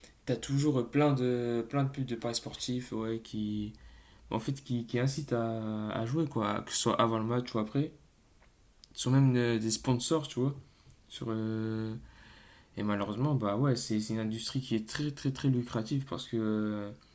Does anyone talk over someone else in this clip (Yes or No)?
No